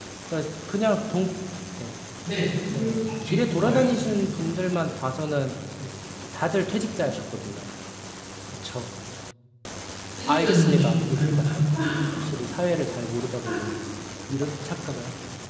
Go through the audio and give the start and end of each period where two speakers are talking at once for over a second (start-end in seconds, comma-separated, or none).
2.7-4.0, 10.3-11.5